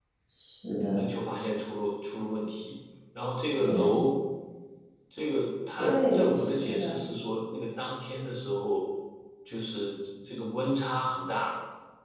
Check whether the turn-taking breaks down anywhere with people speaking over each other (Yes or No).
Yes